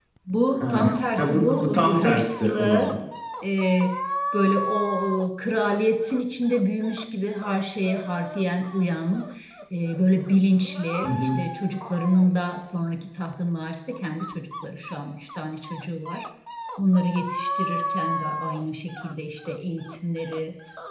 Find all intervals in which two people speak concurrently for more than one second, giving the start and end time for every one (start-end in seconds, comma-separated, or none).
0.6-2.9